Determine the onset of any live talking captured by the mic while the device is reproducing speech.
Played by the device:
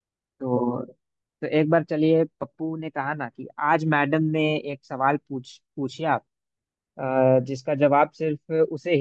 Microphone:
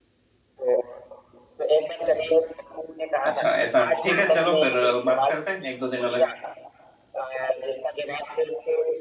3.2 s

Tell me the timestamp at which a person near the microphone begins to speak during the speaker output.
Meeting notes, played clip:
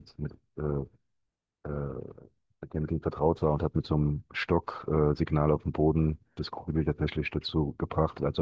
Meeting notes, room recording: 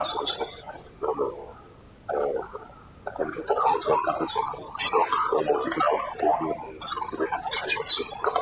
none

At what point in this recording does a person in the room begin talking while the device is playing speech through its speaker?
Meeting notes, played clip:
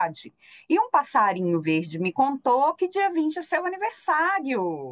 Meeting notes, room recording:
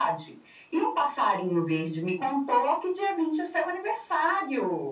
none

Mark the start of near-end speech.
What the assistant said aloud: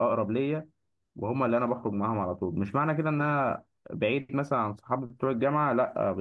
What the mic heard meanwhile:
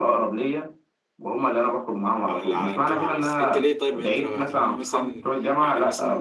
2.3 s

